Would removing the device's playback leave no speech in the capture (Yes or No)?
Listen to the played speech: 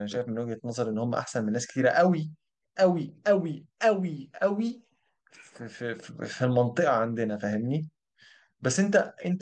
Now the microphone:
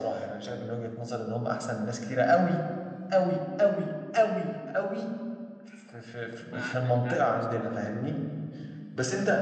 No